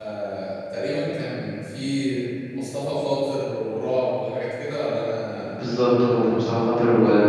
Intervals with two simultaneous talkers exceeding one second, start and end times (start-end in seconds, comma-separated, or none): none